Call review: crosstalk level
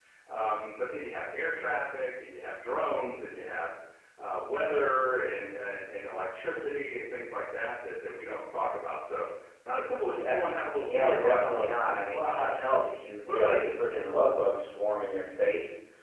present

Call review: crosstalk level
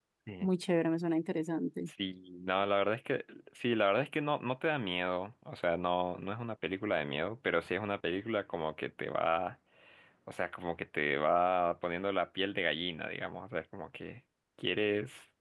none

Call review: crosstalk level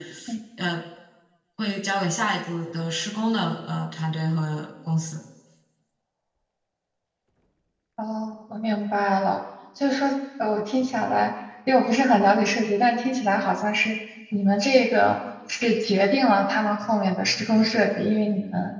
none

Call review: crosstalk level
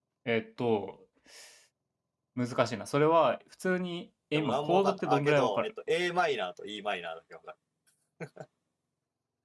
present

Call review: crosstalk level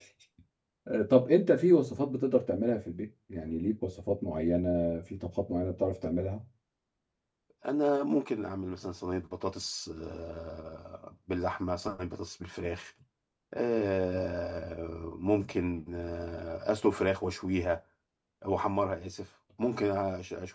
none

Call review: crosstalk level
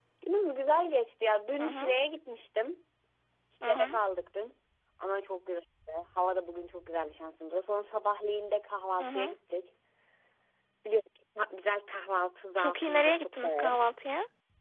present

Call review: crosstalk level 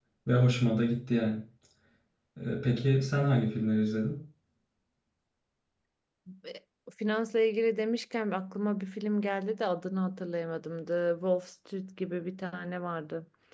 none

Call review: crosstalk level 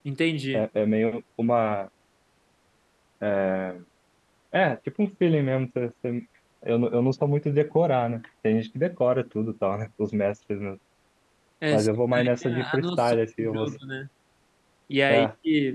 present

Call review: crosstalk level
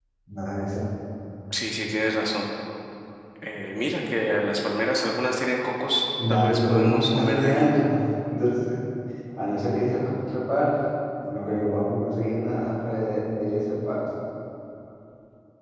present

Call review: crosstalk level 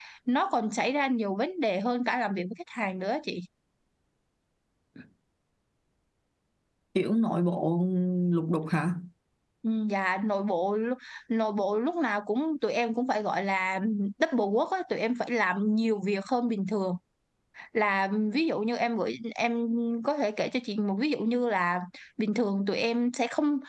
none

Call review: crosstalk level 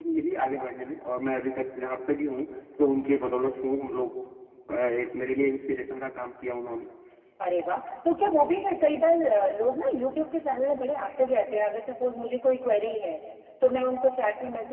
none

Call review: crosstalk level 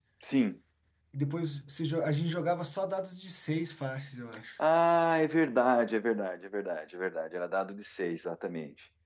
none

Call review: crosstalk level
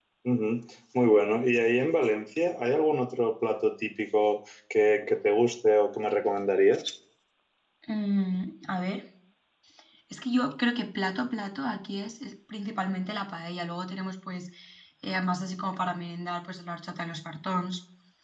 none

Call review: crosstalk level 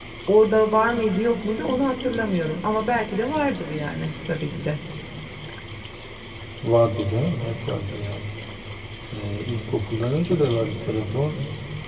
none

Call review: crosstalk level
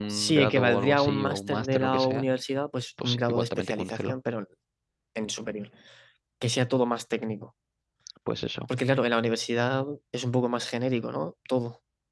present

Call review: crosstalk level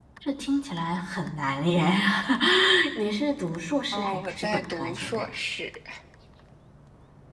present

